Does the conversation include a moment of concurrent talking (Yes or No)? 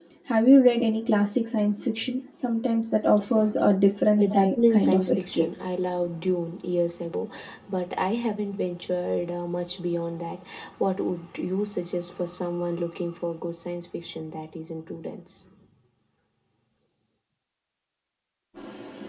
Yes